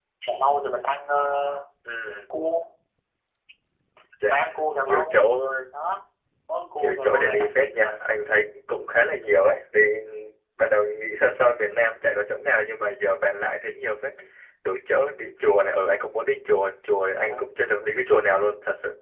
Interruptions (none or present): present